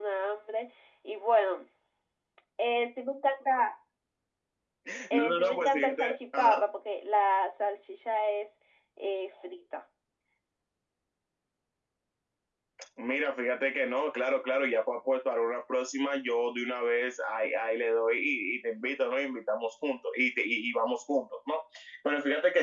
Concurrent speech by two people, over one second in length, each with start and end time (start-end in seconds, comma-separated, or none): 5.1-6.6